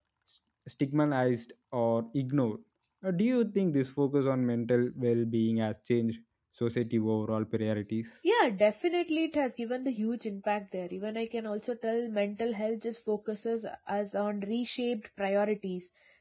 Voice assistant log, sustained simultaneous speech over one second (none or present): none